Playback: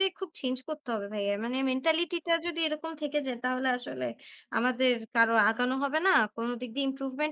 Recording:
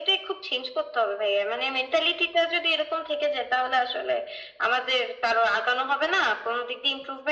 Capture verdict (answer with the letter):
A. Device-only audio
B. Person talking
A